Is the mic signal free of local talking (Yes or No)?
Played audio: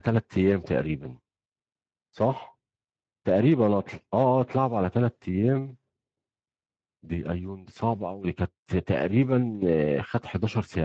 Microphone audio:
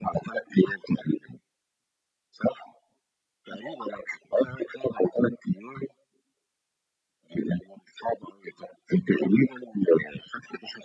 Yes